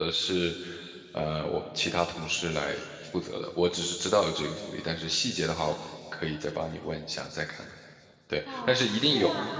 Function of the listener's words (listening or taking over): taking over